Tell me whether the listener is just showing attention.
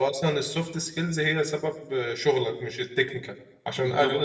Yes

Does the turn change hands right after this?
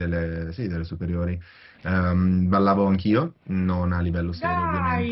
No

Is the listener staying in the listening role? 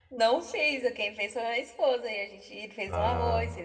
Yes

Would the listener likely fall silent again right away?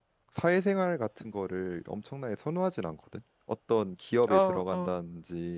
Yes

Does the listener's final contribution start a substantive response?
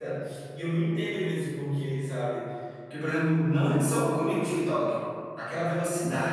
No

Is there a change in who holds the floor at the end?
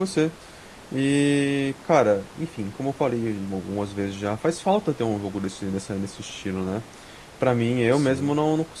No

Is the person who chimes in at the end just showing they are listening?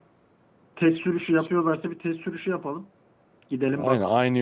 No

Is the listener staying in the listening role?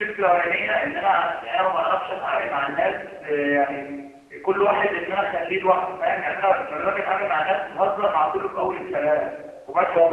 No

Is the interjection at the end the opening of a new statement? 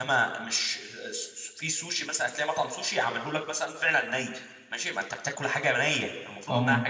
No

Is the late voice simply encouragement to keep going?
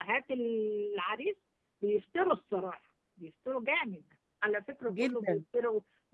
Yes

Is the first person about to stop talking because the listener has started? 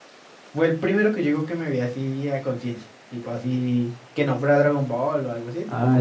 Yes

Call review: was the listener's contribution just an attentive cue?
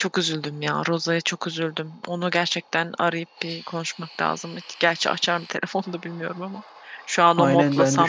No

